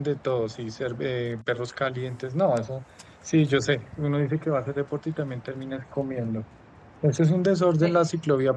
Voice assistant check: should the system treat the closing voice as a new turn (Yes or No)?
No